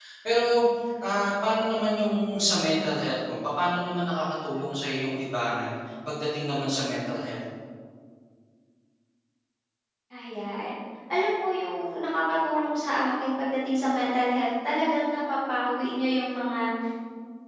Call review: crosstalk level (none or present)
none